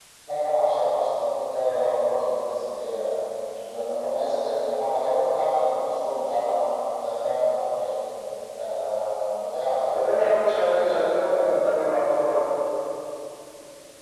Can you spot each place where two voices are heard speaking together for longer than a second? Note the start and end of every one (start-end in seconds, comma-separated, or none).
10.6-11.8